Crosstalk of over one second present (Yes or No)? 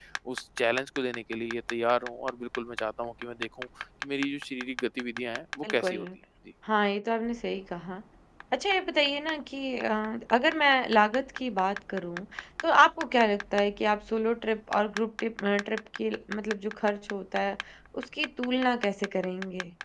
No